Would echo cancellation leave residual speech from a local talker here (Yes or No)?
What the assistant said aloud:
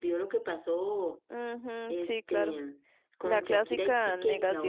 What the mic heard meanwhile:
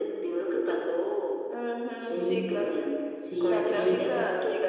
Yes